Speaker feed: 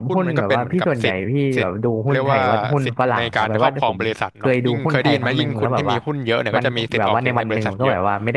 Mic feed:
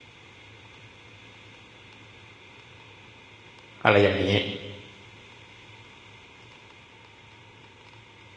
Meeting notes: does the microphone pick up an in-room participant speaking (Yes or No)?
Yes